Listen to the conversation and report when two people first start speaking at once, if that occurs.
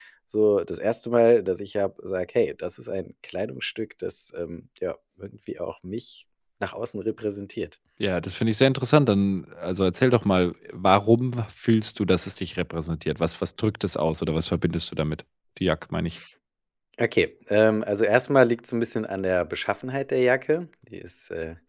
none

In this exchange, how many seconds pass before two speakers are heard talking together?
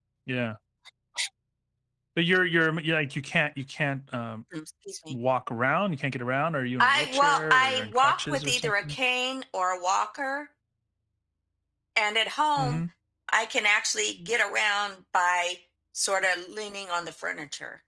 7 s

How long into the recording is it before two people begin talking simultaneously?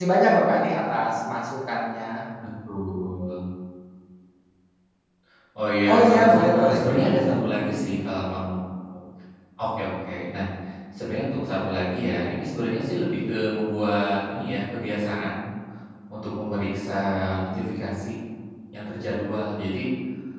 6 s

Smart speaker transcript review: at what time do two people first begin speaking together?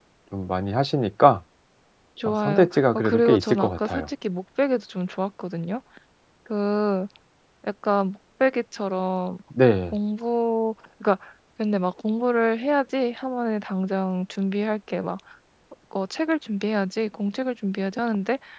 2 s

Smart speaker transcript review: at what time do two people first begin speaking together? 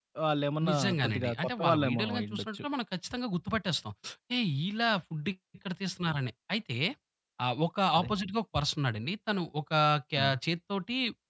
1 s

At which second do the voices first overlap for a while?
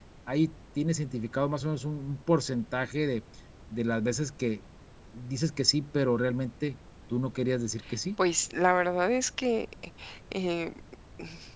none

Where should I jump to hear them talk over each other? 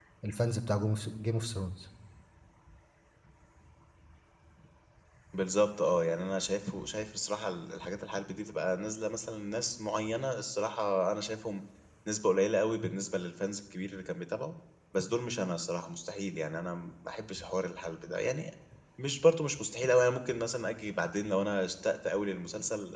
none

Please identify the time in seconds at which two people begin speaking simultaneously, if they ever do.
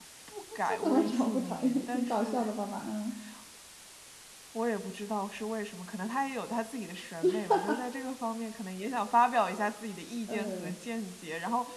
1 s

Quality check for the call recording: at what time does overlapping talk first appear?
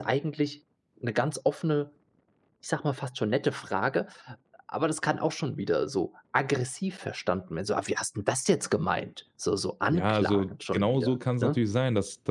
10 s

